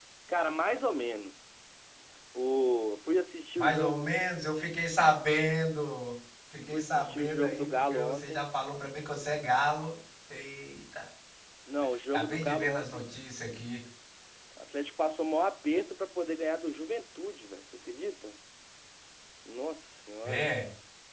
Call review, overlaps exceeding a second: present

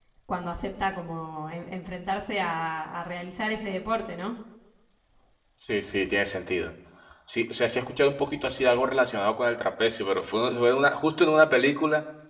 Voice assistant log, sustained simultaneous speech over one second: none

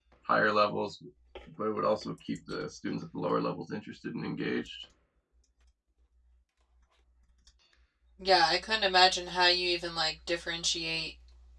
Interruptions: none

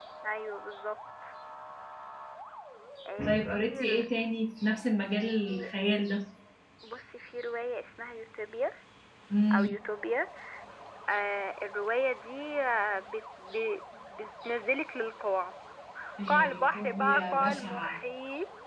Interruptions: present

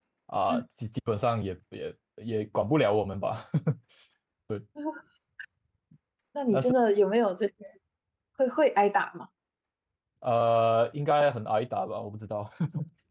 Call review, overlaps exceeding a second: none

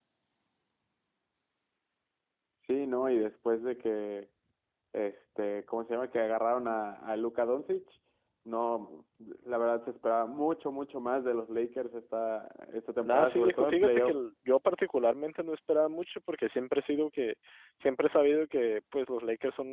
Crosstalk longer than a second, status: present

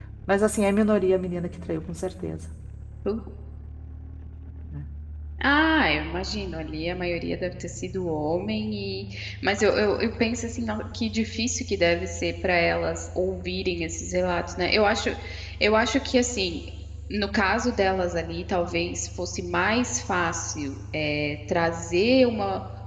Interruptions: none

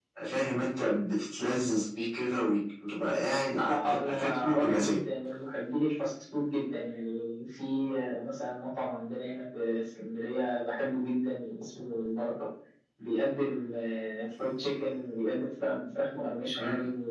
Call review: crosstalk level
present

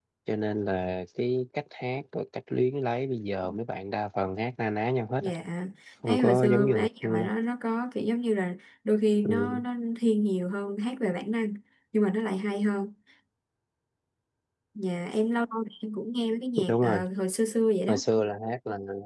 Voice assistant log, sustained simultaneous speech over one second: present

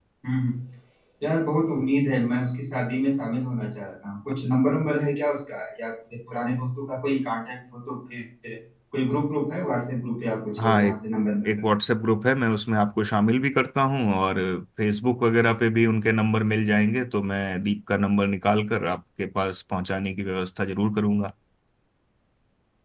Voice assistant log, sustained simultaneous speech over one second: none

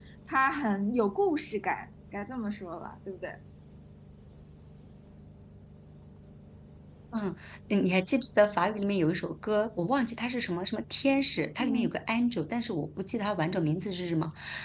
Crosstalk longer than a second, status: none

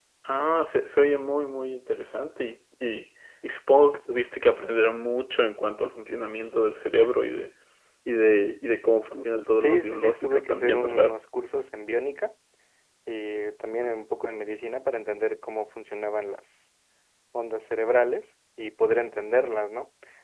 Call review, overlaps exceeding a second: present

